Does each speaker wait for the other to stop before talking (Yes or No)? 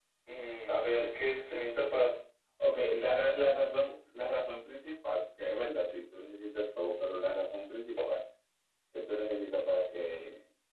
Yes